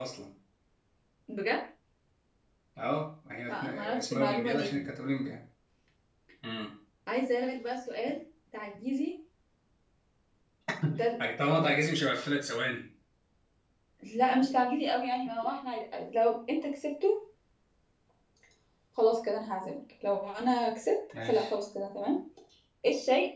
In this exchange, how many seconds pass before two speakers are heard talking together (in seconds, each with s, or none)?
3.5 s